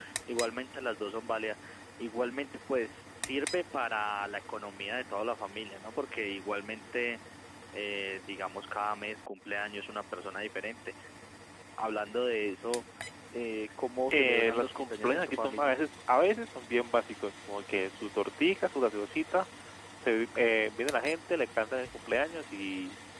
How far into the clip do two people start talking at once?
14 s

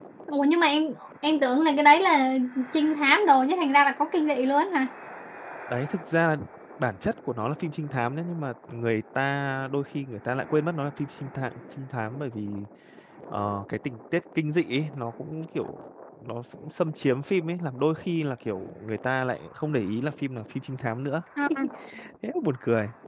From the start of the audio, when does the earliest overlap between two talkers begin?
none

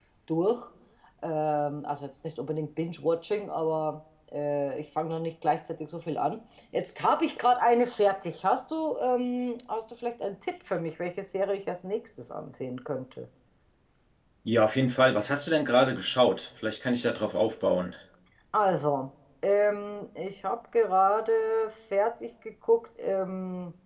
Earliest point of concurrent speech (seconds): none

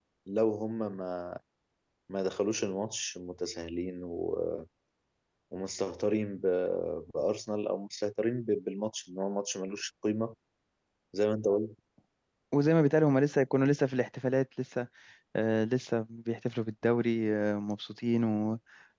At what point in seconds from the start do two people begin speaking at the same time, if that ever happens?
none

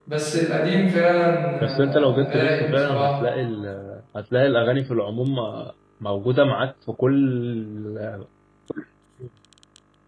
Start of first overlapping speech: 2 s

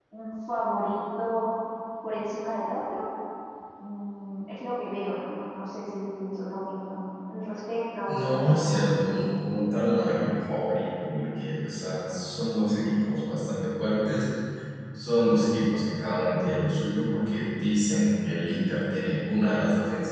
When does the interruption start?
8 s

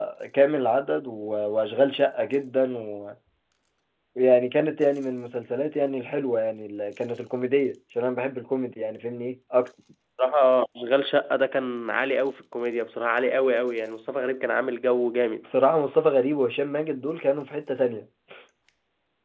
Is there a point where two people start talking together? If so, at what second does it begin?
none

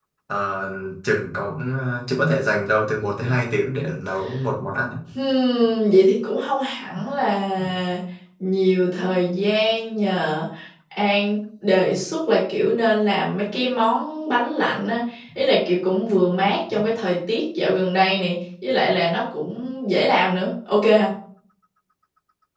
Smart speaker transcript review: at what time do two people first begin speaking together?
none

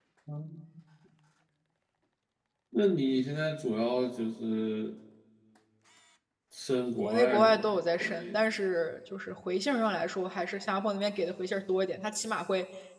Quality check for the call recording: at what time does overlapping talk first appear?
7 s

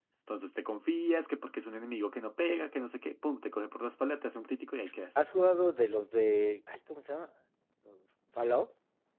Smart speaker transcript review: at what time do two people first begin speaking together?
none

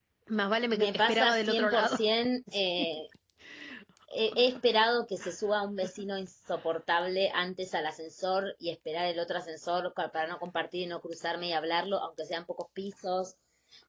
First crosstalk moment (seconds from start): 1 s

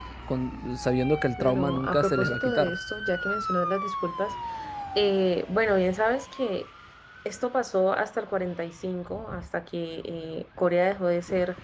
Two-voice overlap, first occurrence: 1 s

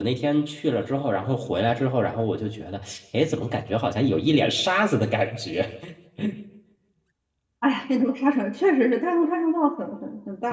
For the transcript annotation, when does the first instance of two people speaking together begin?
none

